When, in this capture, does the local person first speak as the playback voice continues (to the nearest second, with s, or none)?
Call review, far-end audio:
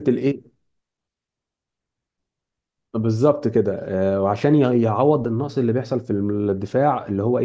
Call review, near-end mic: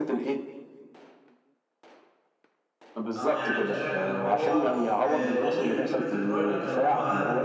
3 s